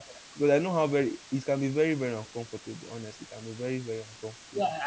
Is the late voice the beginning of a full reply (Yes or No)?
Yes